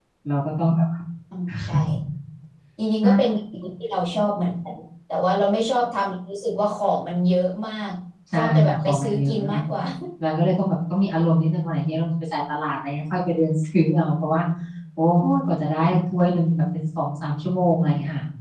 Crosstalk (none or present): present